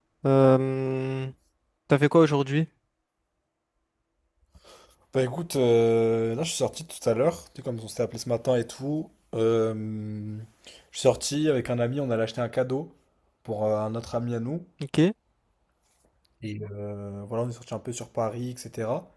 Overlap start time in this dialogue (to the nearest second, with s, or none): none